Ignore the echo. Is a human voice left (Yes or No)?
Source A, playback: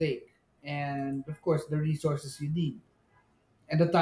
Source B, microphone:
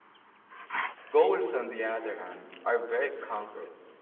Yes